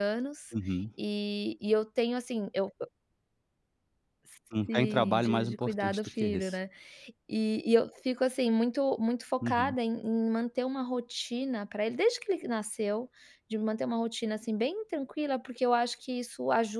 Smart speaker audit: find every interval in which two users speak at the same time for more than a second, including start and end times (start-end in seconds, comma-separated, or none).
4.7-6.6